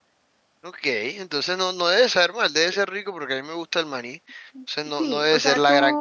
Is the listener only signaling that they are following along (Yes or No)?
No